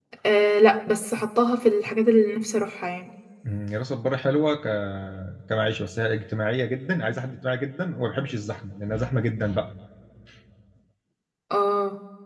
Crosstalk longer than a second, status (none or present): none